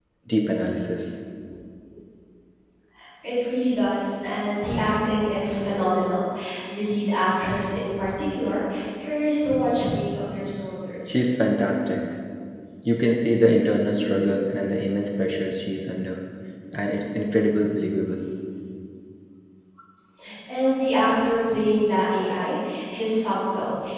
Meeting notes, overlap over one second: none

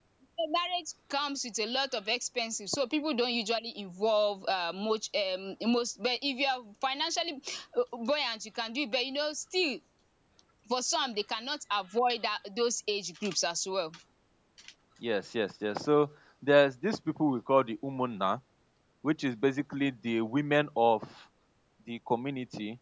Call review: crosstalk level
none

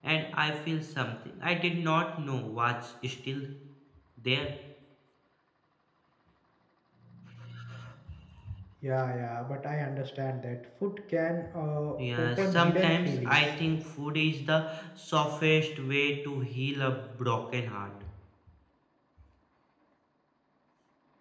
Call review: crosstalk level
present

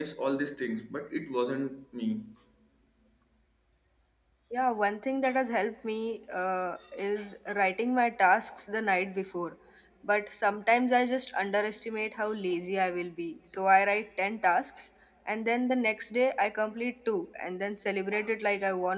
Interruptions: none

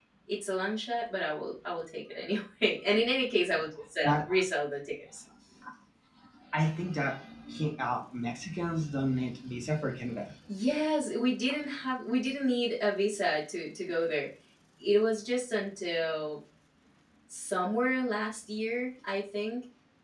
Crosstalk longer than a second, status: none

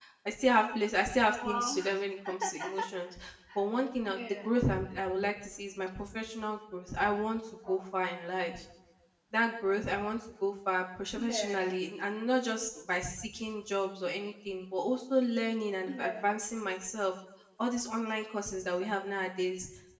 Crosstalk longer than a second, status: none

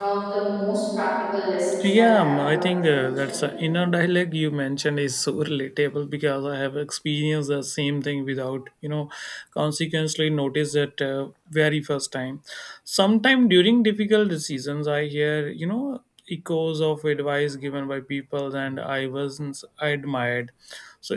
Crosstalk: present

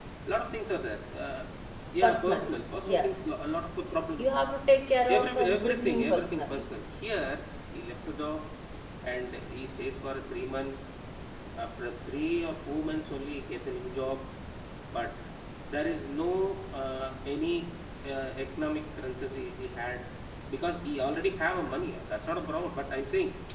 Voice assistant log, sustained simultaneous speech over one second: present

